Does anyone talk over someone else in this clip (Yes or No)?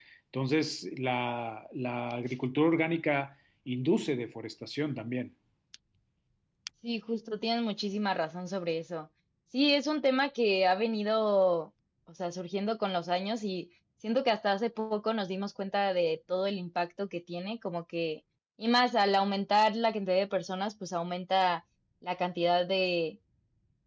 No